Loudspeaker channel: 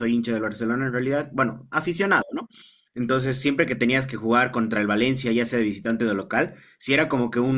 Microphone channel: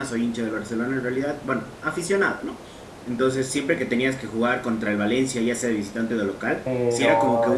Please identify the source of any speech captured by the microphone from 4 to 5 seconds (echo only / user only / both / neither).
echo only